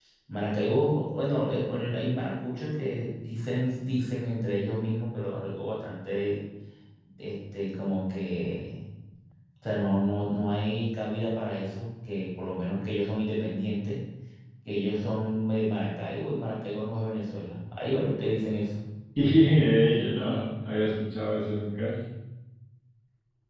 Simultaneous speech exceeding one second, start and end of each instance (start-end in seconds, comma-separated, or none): none